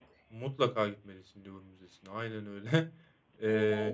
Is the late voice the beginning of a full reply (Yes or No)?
No